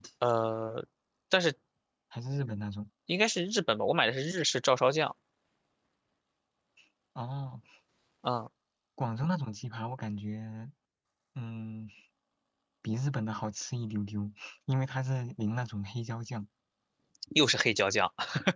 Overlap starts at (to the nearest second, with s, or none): none